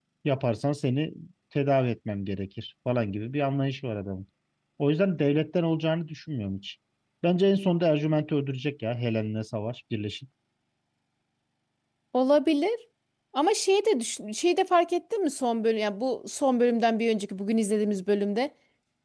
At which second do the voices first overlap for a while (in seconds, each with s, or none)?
none